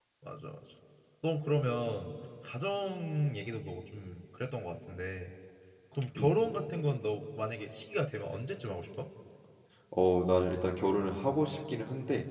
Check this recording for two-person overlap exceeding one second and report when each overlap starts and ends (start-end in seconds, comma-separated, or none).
none